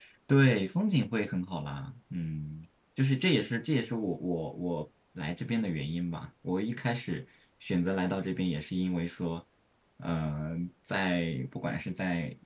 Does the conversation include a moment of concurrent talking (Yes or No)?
No